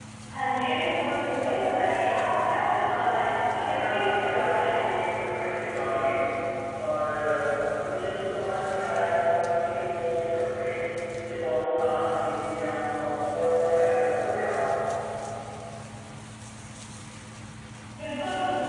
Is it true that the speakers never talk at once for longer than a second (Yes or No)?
No